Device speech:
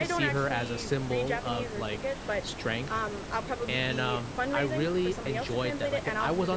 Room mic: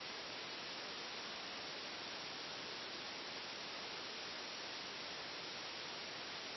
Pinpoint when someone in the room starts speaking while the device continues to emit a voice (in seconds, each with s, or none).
none